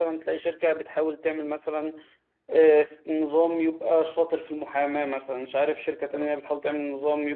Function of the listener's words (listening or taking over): listening